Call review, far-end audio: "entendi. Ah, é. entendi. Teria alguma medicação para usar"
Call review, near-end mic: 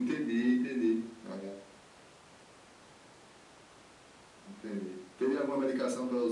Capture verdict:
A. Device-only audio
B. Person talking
A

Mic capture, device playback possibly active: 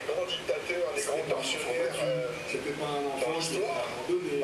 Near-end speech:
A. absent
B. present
B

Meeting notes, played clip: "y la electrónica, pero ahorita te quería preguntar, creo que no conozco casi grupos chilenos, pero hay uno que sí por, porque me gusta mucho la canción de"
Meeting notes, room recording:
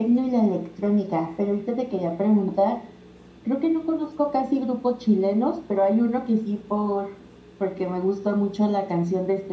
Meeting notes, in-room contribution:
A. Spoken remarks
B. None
B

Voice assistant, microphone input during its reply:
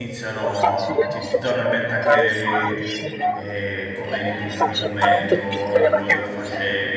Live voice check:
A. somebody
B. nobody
A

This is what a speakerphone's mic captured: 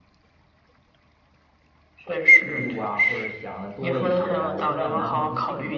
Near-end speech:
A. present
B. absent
A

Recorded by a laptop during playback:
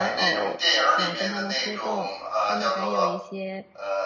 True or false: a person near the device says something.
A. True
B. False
A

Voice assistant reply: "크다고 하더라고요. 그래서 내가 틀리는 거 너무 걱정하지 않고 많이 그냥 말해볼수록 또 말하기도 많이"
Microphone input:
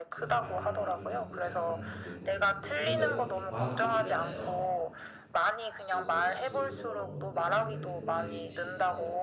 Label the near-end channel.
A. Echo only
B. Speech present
B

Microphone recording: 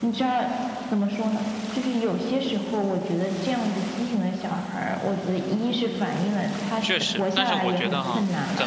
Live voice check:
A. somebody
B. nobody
A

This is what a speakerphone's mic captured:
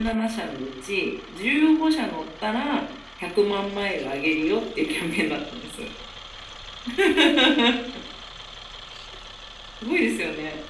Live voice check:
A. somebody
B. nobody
B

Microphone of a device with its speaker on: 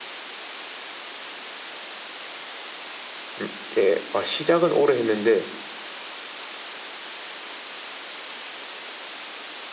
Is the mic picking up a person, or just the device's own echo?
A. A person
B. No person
A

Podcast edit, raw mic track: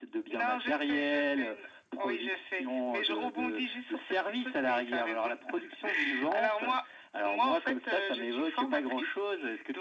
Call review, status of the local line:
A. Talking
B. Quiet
B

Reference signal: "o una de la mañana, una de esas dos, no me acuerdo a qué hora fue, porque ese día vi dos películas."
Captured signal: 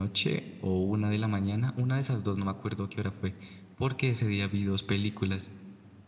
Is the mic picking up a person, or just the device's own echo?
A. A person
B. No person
B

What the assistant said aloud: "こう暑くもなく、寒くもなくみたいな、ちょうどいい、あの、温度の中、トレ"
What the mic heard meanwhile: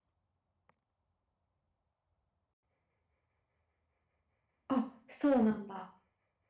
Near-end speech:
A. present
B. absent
A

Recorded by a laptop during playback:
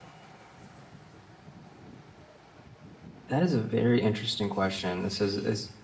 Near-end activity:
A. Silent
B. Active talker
B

